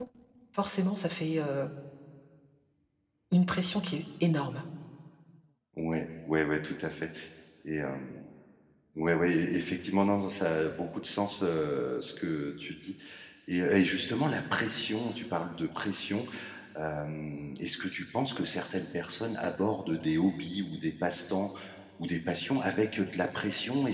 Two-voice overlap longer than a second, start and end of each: none

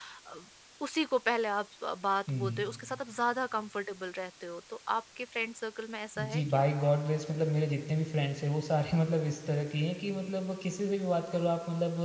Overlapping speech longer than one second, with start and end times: none

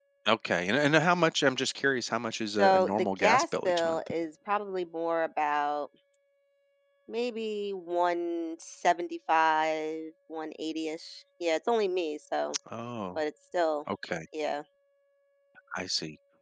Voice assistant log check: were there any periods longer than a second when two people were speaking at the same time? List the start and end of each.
2.6-4.0

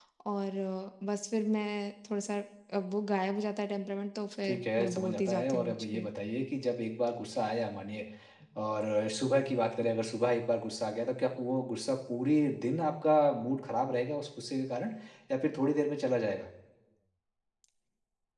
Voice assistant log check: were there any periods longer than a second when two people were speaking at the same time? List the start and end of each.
4.4-6.1

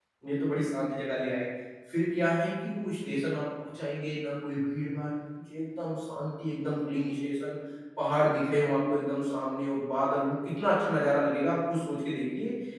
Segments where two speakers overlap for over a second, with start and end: none

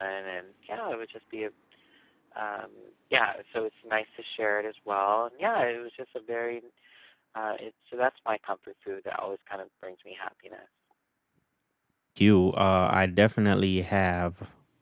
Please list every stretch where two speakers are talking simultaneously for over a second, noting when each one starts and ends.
none

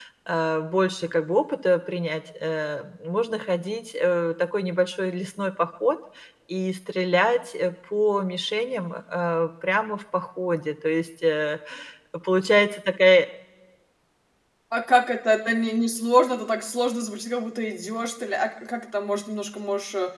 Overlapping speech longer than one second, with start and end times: none

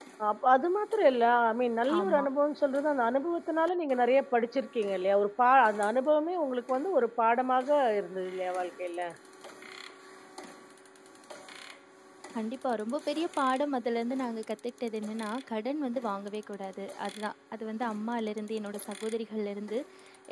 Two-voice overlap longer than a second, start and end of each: none

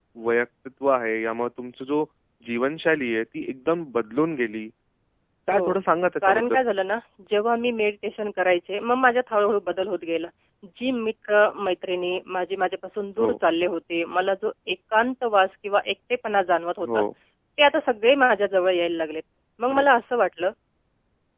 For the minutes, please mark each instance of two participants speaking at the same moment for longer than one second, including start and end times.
none

